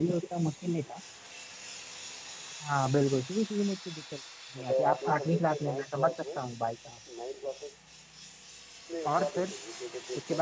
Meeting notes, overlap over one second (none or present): present